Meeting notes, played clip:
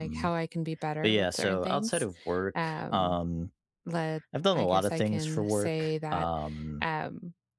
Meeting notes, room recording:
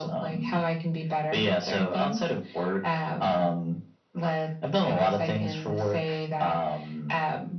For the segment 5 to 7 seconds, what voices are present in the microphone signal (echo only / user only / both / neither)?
echo only